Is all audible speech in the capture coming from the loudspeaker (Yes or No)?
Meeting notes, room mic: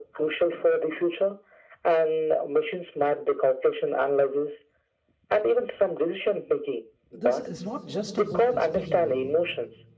No